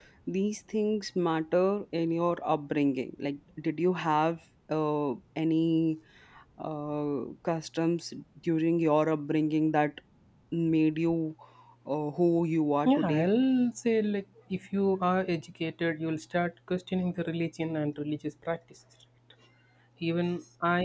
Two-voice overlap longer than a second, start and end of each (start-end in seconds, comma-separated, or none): none